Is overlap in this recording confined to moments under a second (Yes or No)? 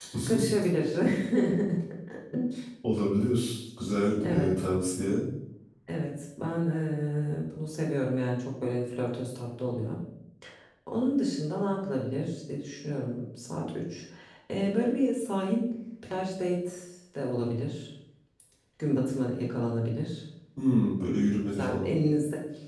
Yes